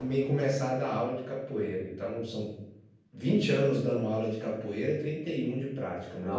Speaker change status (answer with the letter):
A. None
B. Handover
B